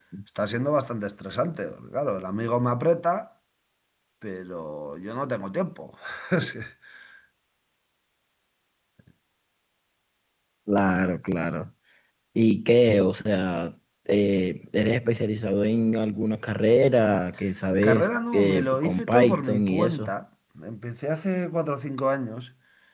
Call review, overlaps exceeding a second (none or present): present